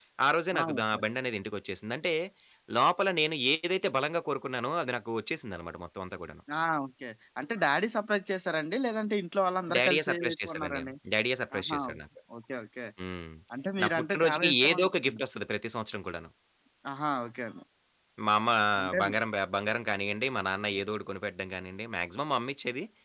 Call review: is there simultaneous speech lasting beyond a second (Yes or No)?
Yes